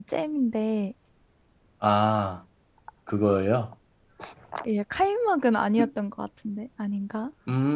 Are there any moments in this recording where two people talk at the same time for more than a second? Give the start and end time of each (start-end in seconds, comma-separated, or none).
none